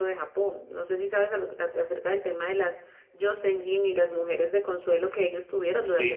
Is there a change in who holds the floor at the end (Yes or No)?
Yes